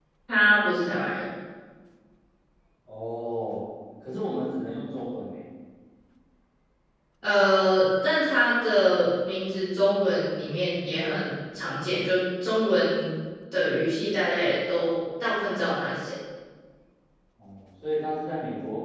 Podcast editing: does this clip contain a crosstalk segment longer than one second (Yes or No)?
No